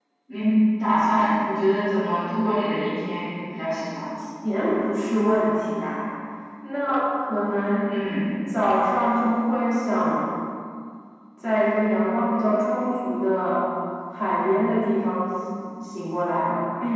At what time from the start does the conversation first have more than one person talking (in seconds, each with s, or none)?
none